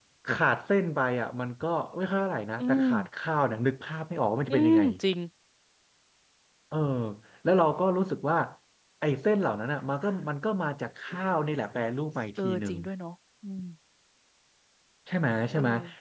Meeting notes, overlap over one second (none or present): none